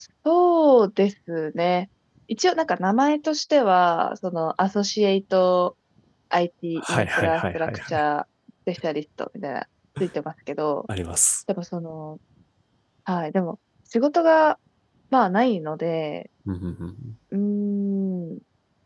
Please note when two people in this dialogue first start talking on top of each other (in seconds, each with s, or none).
6.8 s